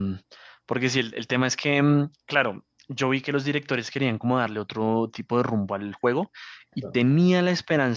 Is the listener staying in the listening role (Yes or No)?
Yes